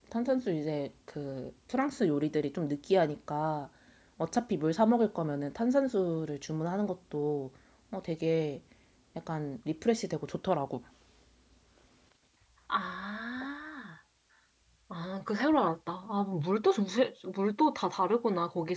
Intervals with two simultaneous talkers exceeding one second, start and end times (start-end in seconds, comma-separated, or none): none